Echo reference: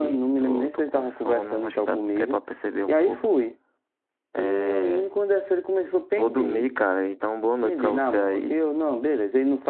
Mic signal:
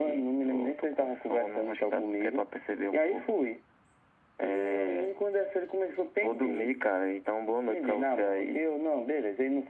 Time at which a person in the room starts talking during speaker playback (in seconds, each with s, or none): none